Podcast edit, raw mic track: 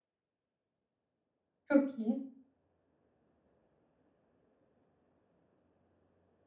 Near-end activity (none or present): present